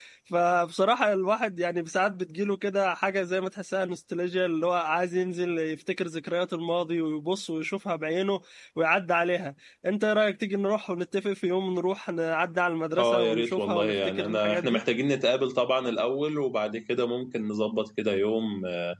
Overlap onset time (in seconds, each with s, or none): 13.0 s